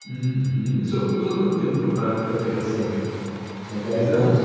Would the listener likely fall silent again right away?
No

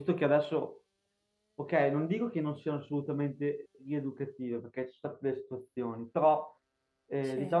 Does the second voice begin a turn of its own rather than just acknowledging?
No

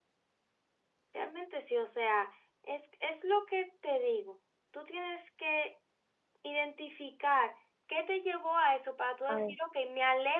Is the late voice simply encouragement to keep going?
Yes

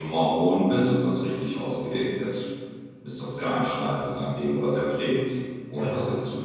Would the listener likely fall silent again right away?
Yes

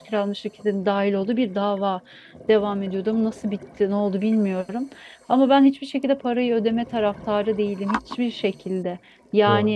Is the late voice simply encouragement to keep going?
Yes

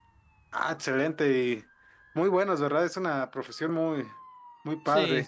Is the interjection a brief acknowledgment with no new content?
No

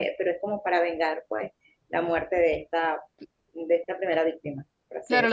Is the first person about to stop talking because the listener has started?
Yes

